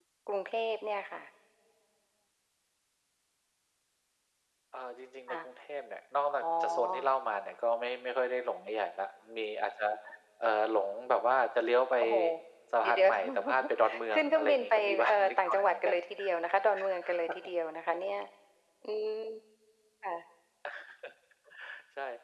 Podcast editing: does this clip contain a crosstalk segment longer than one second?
Yes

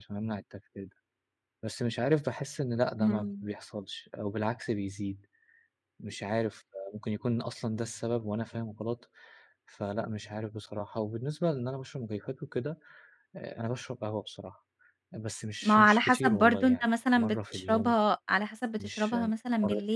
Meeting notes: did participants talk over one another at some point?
Yes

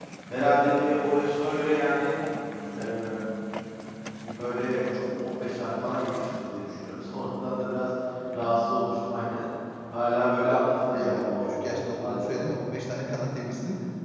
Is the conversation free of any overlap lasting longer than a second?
No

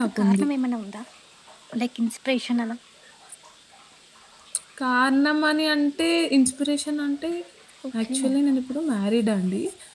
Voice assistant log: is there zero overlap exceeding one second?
Yes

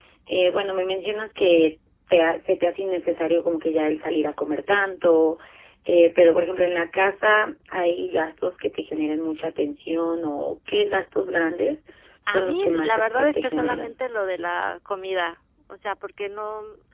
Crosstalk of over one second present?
Yes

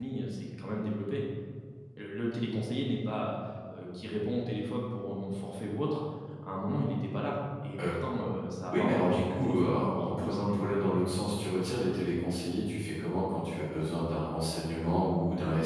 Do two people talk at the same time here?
Yes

